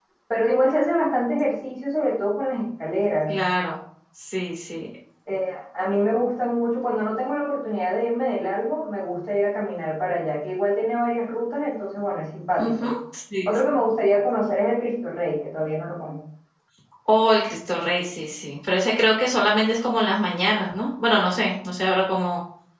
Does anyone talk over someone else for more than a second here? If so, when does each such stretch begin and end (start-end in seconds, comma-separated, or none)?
none